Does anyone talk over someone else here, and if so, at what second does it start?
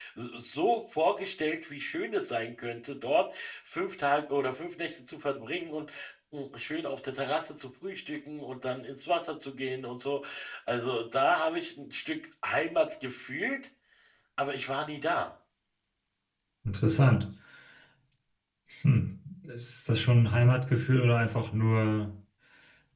none

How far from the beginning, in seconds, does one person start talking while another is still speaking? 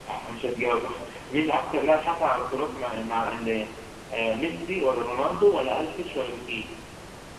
none

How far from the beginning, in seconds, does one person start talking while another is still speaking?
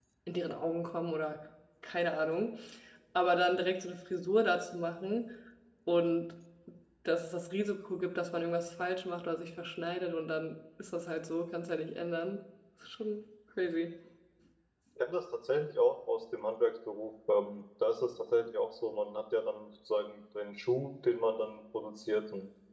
none

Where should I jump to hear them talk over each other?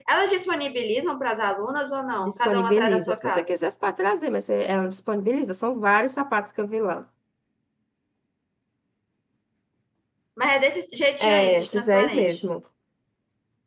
2.2 s

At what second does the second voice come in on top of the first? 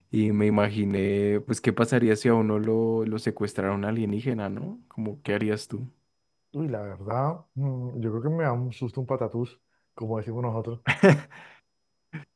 none

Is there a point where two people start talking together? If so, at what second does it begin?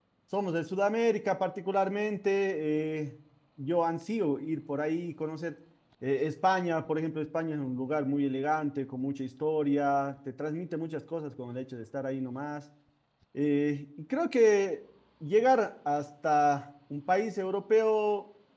none

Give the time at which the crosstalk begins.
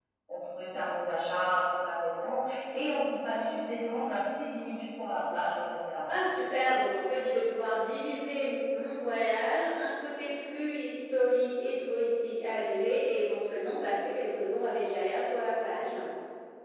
none

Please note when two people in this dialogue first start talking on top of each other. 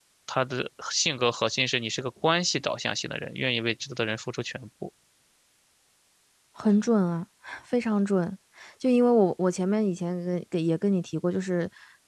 none

